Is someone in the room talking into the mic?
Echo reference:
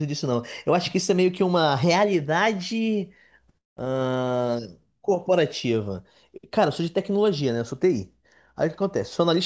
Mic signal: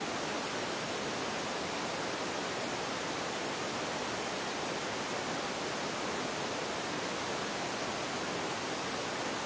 No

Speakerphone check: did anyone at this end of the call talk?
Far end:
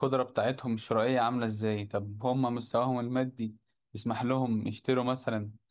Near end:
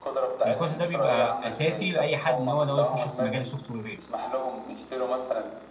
Yes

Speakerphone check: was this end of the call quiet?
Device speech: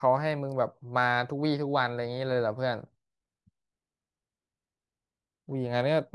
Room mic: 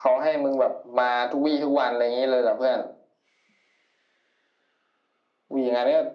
Yes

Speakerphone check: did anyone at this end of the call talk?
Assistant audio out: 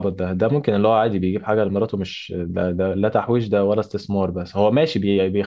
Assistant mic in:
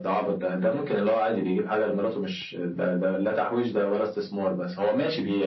No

